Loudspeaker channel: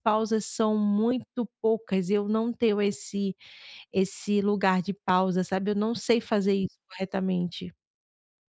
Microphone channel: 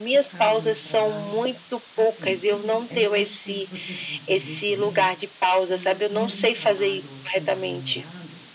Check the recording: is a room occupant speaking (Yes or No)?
Yes